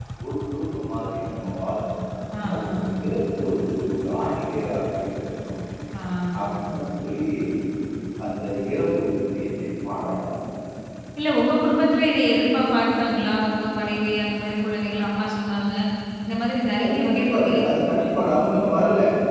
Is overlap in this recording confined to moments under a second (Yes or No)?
No